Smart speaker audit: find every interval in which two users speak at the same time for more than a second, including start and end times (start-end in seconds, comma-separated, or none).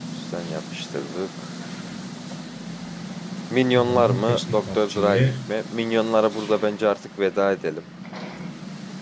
3.8-5.3